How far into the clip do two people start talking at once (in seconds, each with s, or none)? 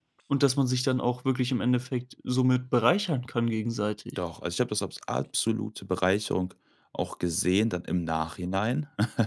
none